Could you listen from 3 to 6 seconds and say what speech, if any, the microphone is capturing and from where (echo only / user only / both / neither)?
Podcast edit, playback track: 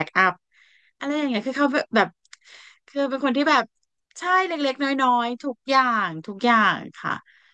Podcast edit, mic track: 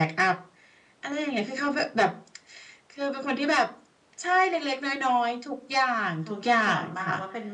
echo only